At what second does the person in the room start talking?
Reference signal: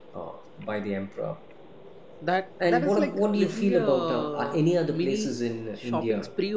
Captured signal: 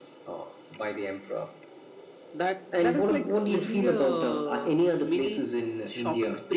none

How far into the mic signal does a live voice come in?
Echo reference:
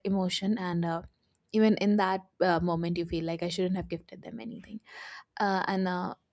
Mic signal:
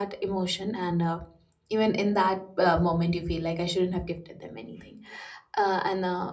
none

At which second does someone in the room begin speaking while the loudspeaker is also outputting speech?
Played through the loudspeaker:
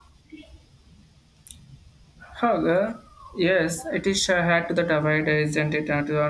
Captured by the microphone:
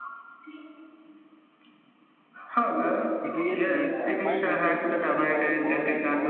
3.2 s

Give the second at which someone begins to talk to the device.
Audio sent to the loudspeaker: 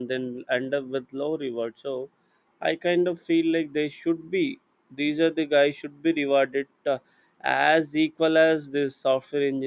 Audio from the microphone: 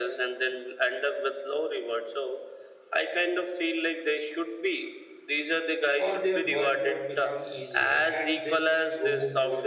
6.0 s

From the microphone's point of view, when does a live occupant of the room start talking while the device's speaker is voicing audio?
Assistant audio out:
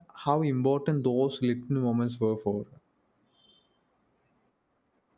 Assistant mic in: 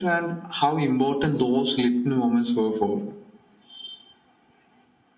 none

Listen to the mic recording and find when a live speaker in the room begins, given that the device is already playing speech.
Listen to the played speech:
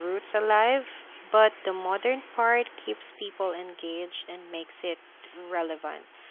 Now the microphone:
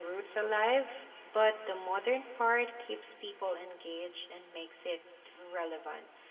none

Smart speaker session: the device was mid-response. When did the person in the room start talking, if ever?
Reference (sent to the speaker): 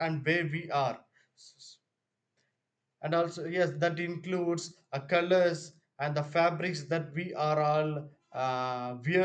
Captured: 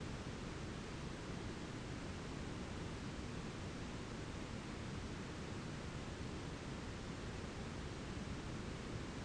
none

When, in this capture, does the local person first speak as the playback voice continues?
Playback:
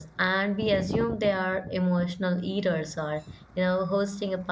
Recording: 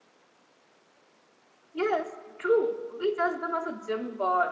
1.7 s

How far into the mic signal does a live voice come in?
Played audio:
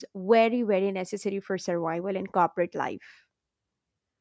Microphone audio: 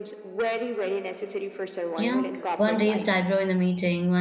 2.0 s

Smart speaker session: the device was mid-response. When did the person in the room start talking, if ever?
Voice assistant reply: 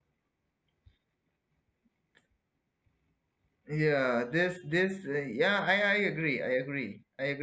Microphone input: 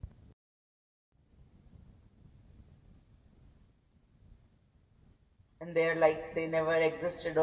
5.6 s

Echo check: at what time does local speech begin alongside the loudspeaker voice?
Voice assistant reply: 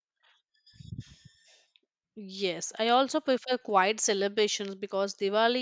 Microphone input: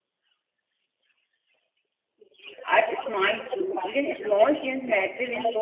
2.7 s

